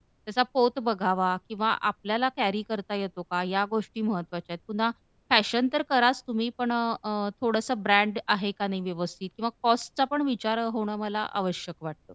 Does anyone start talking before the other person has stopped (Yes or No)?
No